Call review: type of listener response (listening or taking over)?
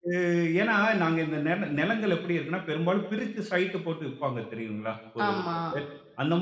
listening